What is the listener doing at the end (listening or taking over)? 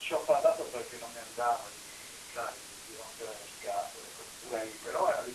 listening